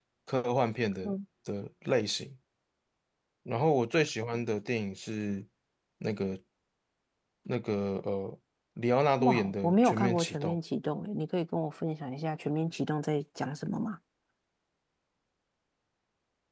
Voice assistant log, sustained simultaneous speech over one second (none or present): present